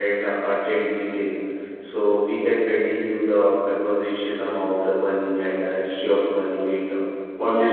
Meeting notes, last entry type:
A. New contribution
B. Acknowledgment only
A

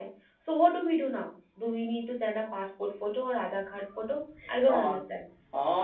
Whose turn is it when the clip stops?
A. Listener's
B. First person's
A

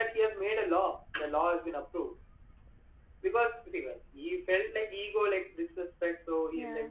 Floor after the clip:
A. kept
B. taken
A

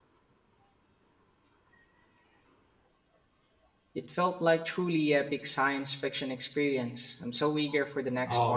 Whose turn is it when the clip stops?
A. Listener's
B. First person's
A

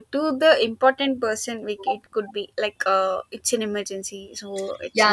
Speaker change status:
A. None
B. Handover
B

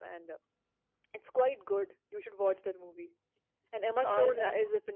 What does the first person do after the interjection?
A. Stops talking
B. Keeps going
B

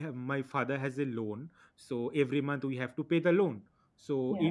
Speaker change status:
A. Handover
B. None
B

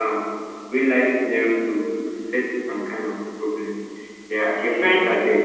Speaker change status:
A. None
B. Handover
A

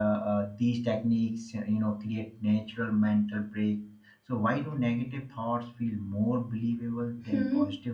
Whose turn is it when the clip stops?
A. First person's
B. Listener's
B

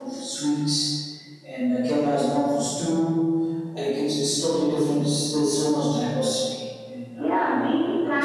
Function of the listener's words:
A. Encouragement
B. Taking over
B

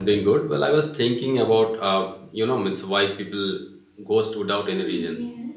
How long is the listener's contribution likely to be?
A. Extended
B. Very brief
A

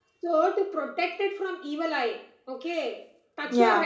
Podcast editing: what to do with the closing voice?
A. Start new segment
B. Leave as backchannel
B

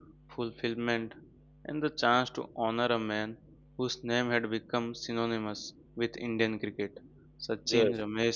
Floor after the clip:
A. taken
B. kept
B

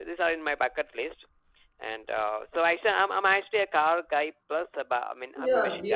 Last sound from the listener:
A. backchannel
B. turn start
B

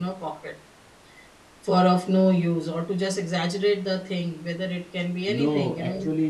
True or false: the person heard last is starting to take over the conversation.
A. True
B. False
A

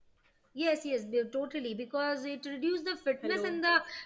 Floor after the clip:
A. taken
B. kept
B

